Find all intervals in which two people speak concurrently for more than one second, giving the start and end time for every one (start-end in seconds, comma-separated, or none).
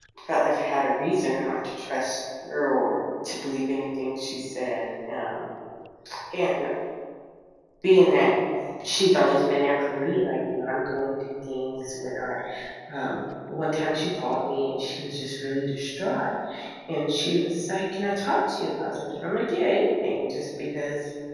none